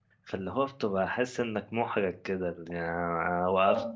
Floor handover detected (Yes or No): No